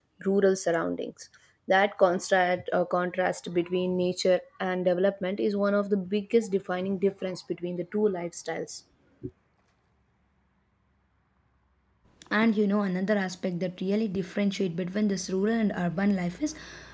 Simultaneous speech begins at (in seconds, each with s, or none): none